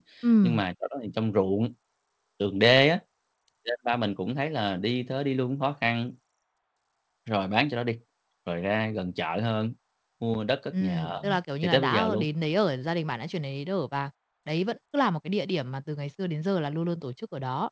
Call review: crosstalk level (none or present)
present